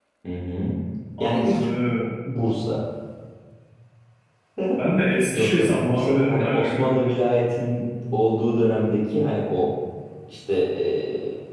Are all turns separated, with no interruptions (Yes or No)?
No